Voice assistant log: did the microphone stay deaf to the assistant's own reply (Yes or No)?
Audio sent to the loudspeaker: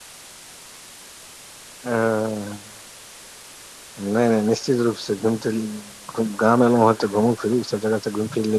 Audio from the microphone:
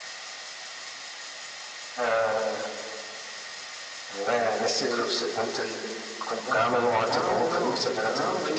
No